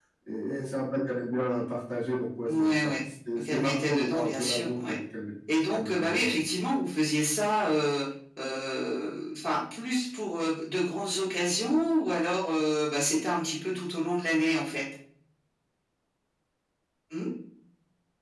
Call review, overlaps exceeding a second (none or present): present